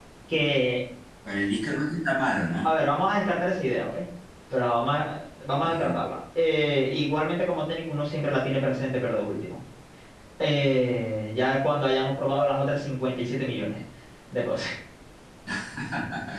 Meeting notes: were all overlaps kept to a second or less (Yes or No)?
Yes